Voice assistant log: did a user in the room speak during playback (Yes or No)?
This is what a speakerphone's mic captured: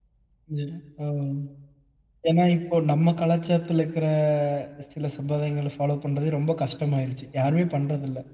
Yes